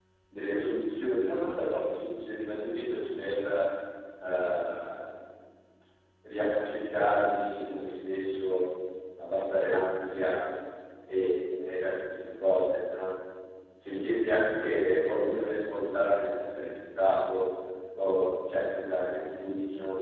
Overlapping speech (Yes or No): No